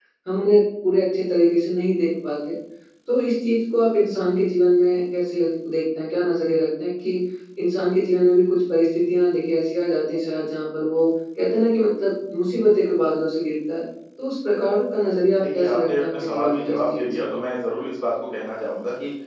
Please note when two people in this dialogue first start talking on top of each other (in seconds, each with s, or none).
15.4 s